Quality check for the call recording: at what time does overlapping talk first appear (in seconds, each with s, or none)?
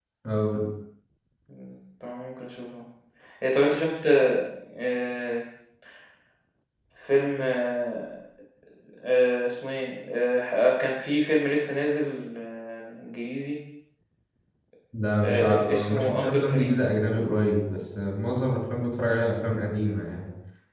15.2 s